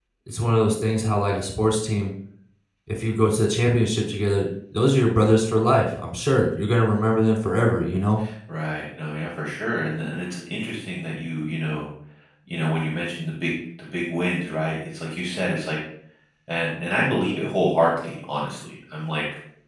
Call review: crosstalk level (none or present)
none